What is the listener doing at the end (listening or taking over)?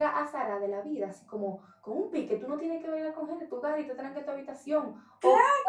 listening